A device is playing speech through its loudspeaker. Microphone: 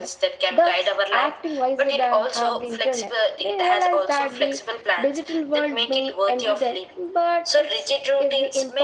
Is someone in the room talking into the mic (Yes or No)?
Yes